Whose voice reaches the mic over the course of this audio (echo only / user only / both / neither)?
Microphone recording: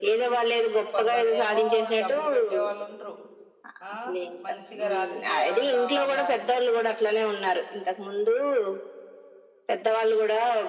both